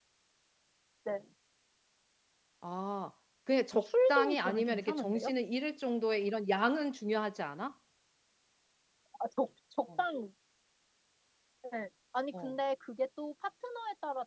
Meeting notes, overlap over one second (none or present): present